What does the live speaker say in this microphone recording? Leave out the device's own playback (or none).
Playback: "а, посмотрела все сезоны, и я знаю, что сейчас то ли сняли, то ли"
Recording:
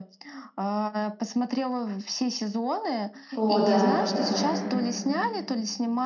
О, да, да, да.